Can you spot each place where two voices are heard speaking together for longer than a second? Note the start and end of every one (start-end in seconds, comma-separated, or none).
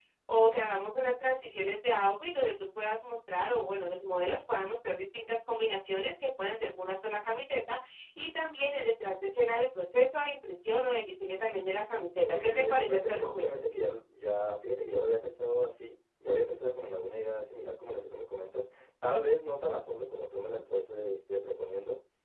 12.2-13.5